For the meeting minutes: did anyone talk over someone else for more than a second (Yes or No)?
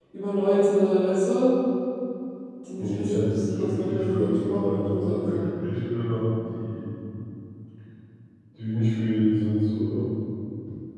Yes